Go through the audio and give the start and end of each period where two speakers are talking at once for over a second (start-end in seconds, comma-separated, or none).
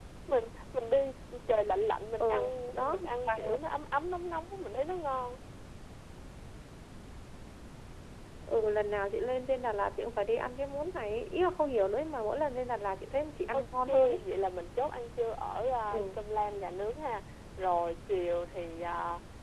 2.2-3.6